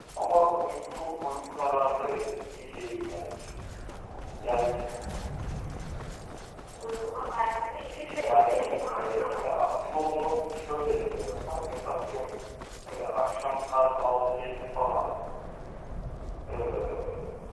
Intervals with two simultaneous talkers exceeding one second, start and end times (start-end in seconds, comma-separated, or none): 8.2-9.4